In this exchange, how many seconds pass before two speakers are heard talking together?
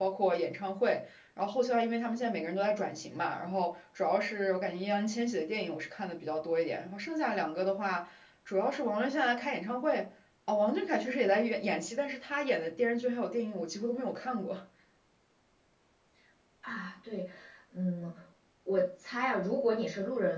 none

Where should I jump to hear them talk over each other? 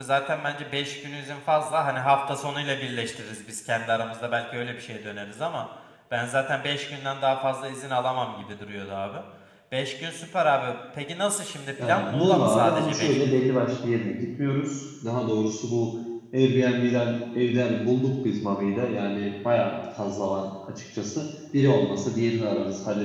12 s

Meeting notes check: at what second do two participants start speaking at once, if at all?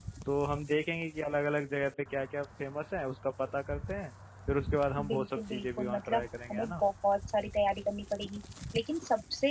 5 s

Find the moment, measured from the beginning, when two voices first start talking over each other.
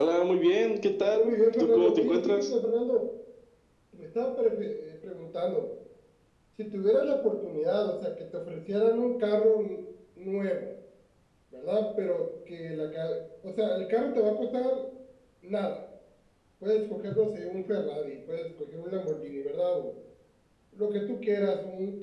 1 s

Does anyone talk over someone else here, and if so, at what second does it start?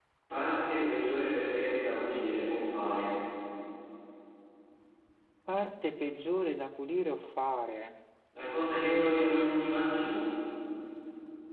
9 s

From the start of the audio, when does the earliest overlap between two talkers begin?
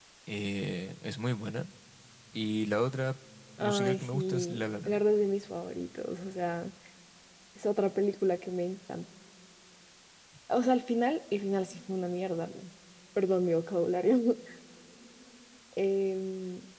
4 s

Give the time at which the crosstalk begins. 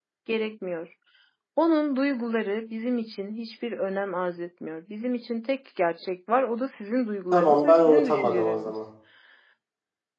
7 s

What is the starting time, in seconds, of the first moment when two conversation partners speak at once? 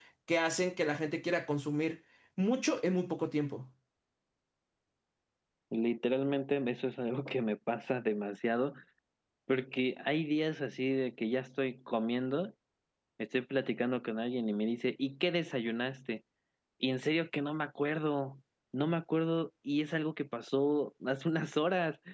none

